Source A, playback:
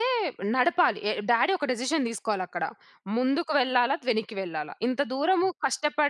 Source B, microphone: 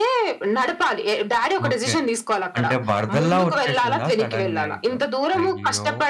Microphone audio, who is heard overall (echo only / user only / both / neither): both